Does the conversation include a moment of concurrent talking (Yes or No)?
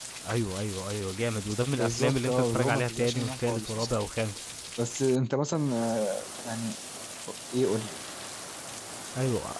Yes